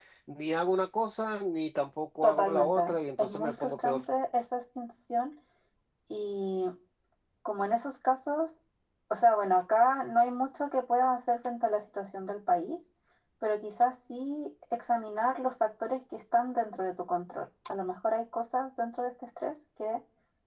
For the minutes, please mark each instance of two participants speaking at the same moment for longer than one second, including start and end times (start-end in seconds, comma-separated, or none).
2.2-4.0